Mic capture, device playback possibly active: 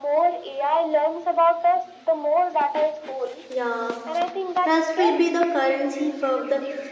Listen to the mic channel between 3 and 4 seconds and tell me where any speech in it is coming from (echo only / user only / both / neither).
both